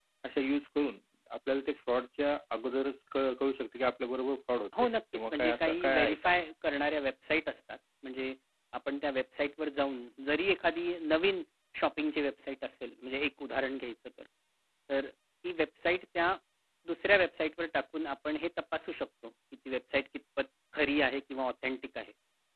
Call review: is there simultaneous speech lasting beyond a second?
Yes, from 4.7 s

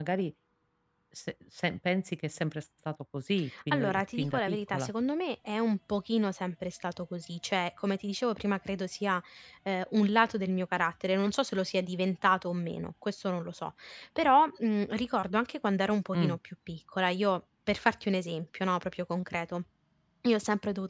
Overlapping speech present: Yes, from 3.5 s

